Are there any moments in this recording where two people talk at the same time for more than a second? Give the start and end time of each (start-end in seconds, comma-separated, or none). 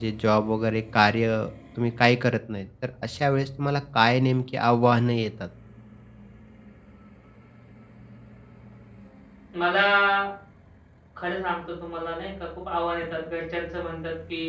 none